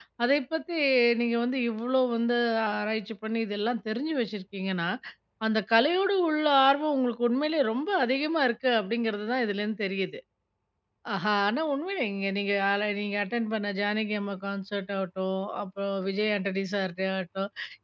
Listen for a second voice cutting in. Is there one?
No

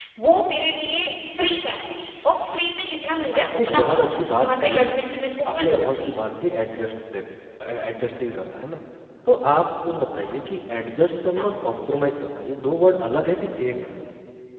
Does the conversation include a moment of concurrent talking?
Yes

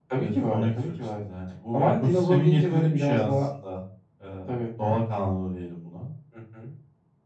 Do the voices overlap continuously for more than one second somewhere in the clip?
Yes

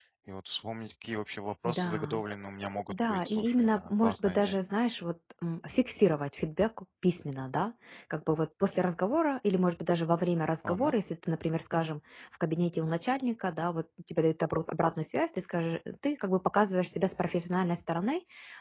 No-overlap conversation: No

